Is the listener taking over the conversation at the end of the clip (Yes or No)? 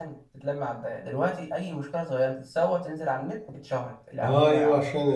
Yes